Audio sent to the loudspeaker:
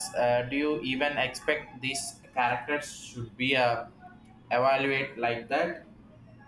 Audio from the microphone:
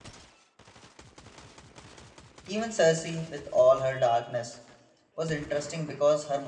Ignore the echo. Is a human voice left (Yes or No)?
Yes